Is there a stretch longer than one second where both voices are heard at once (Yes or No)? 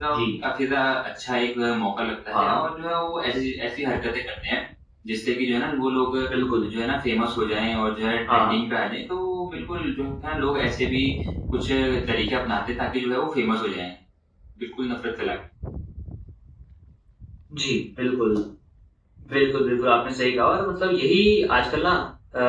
No